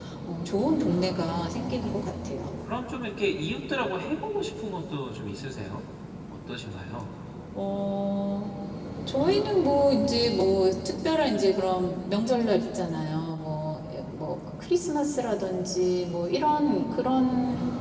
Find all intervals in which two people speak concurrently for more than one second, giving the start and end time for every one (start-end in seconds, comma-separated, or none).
none